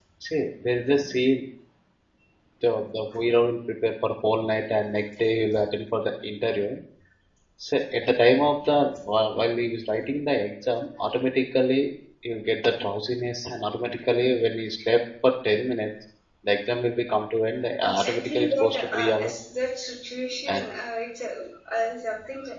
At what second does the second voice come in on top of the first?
18 s

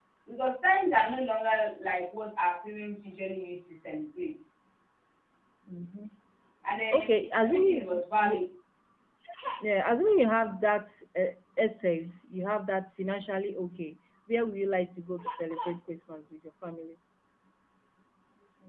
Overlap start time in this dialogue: 7 s

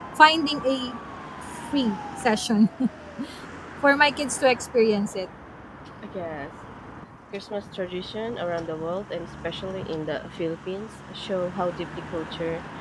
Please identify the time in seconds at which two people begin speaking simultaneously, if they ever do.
none

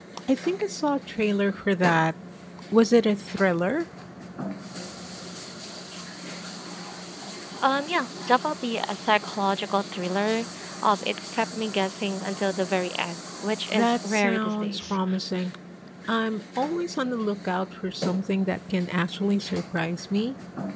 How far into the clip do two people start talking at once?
14 s

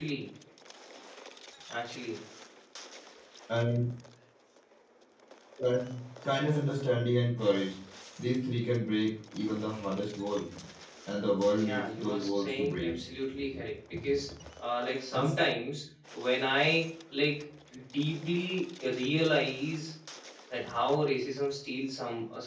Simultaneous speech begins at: 12 s

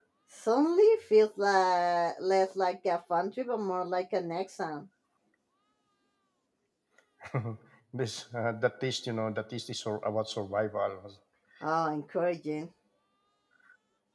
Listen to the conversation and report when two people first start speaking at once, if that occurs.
none

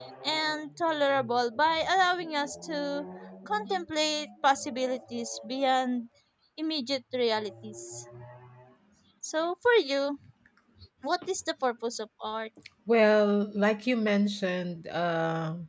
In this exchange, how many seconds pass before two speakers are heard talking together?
none

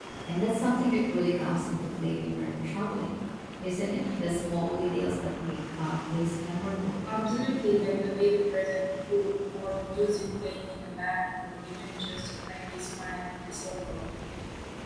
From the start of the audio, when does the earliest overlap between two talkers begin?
none

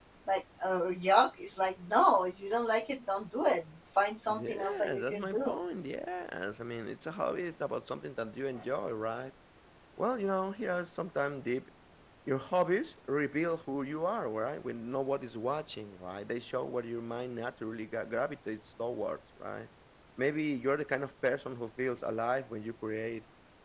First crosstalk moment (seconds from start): 4 s

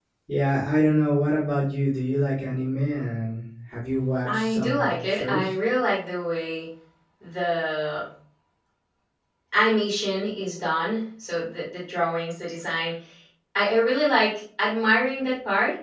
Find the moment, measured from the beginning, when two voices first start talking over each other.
4 s

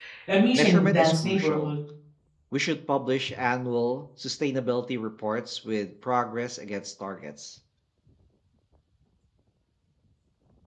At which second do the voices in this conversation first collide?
1 s

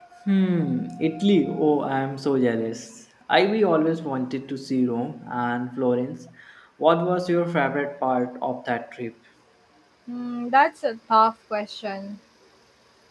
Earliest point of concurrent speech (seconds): none

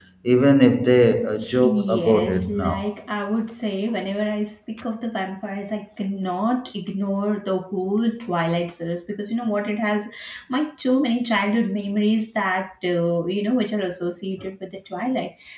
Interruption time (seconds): 1 s

